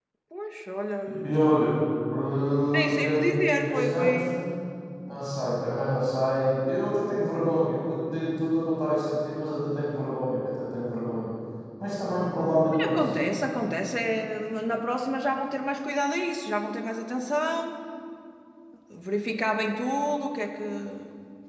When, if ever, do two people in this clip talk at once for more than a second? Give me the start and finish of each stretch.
2.7-4.2

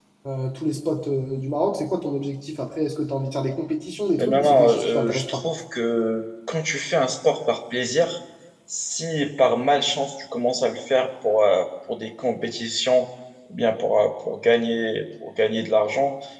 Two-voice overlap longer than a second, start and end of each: 4.2-5.4

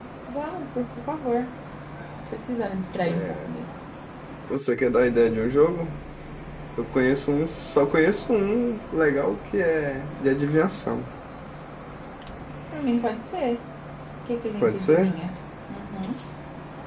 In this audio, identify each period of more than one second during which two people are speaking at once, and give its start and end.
none

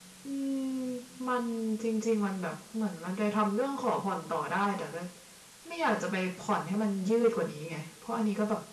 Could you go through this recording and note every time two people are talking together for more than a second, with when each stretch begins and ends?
none

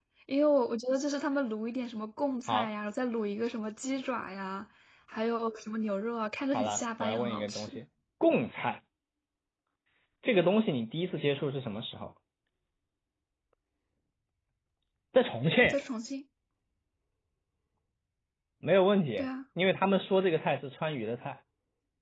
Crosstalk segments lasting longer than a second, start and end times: 6.5-7.8

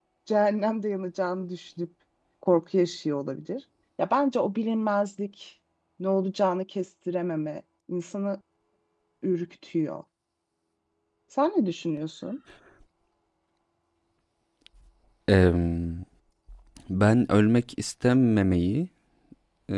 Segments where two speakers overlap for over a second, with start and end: none

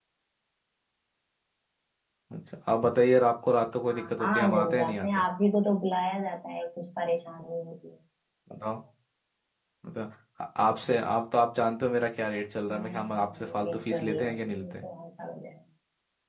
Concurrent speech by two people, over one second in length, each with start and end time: 3.9-5.2, 12.7-14.8

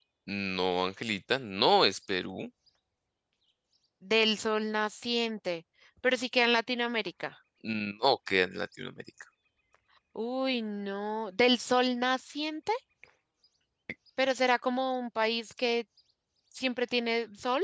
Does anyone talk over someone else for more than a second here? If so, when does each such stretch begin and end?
none

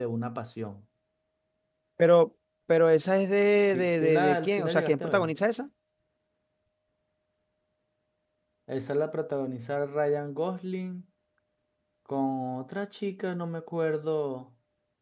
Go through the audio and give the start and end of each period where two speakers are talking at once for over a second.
3.7-5.3

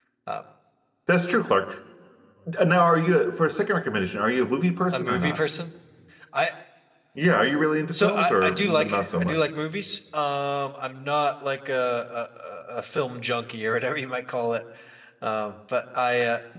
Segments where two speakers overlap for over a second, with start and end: 7.9-9.4

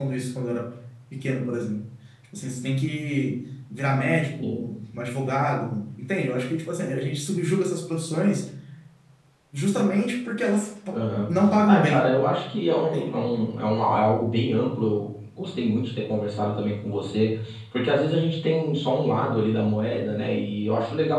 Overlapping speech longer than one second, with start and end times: none

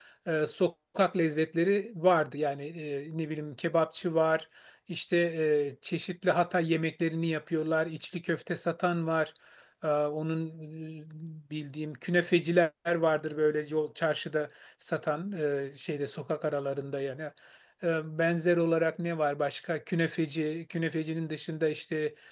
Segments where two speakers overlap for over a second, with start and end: none

